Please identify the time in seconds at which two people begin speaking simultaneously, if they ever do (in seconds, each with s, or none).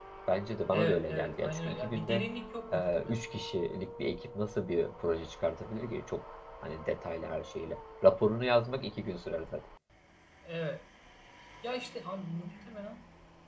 0.7 s